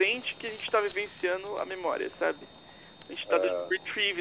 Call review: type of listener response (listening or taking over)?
listening